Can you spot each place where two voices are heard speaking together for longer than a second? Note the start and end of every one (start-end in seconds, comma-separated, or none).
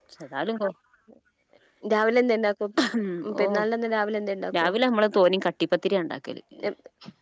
none